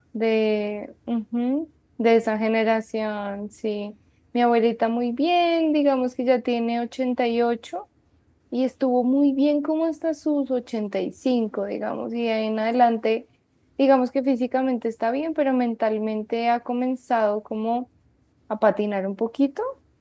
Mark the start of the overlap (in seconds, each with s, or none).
none